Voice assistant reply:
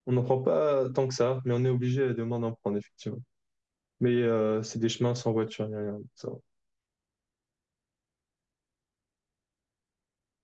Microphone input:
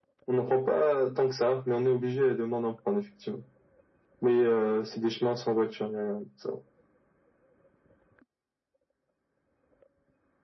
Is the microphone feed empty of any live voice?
Yes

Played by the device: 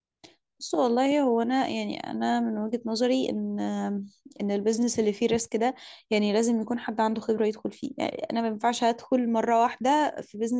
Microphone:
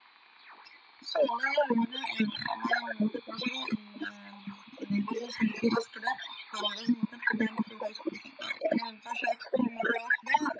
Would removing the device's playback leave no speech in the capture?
Yes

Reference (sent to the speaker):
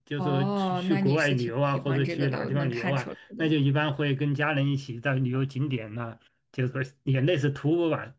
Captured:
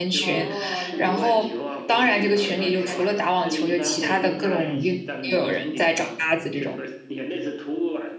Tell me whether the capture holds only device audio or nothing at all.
No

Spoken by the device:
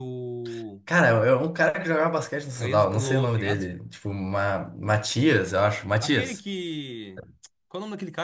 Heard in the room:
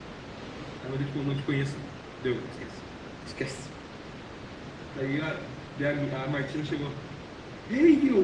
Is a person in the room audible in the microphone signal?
Yes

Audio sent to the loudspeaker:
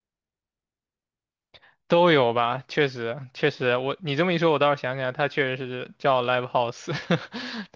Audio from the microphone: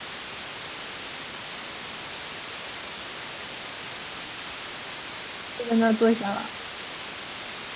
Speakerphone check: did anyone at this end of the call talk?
Yes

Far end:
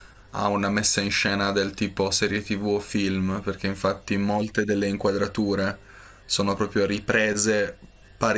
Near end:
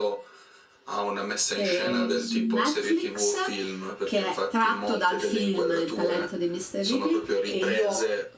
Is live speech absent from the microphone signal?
No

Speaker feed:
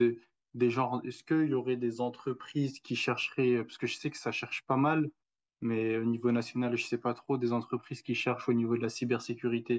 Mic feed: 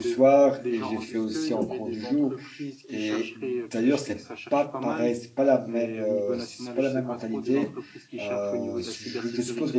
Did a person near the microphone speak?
Yes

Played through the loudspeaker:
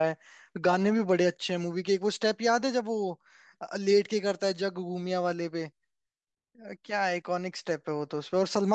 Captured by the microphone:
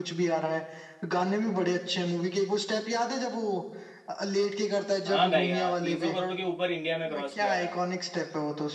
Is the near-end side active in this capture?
Yes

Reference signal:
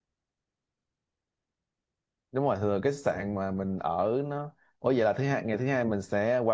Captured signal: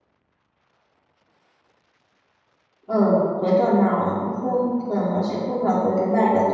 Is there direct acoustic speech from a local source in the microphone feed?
Yes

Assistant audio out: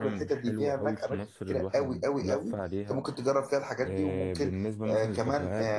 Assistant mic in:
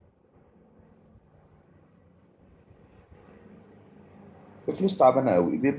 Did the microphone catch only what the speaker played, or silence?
No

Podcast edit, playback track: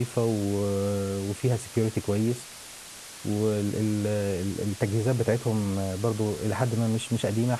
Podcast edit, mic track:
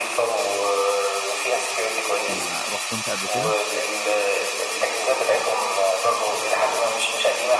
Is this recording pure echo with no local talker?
No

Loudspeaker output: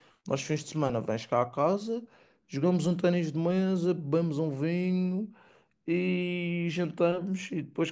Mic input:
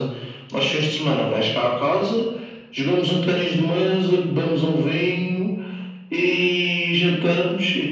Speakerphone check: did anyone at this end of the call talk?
No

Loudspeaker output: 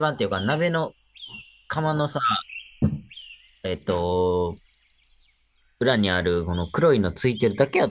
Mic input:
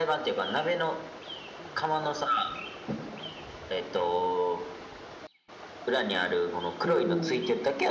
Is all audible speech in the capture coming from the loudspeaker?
No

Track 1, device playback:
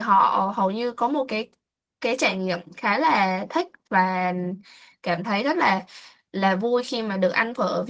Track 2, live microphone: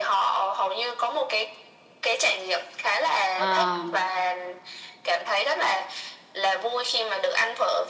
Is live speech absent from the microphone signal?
No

